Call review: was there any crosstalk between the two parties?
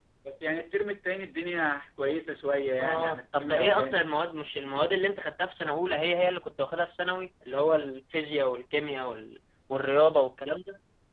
Yes, from 2.8 s

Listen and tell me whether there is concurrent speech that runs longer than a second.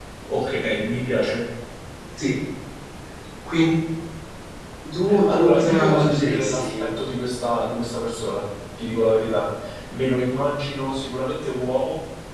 Yes, from 5.2 s

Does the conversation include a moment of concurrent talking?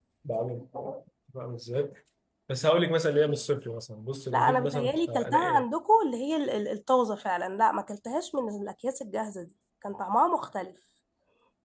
Yes, from 4.3 s

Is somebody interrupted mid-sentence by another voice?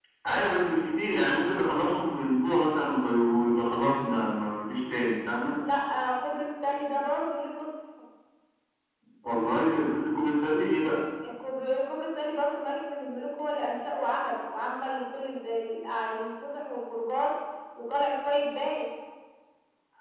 No

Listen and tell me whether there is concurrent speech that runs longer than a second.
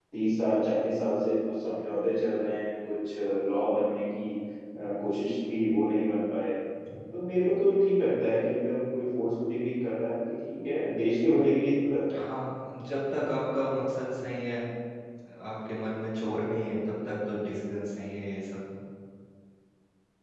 No

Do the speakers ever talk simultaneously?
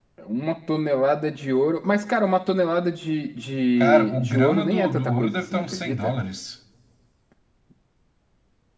Yes, from 3.8 s

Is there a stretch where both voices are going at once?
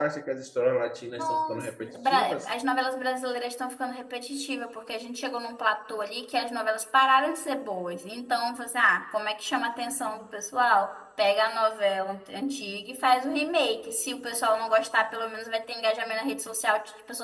Yes, from 1.2 s

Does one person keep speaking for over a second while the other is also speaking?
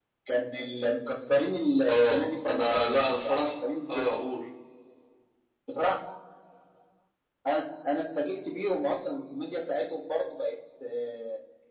Yes, from 1.9 s

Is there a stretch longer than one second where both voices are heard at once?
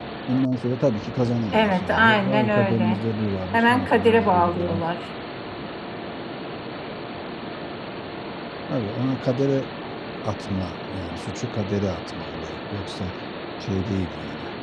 Yes, from 1.5 s

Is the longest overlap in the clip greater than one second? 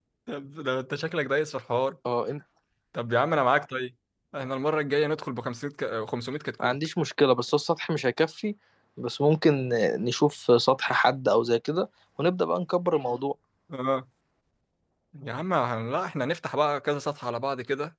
No

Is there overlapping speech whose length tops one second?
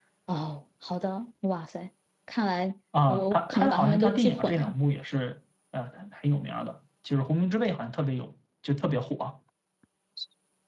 Yes, from 2.9 s

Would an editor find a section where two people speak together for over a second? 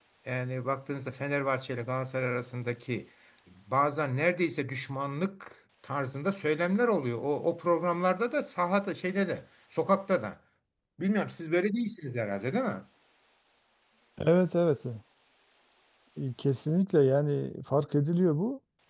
No

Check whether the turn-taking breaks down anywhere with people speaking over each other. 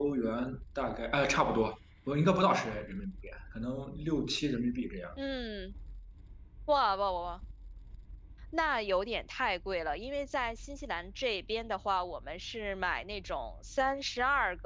No

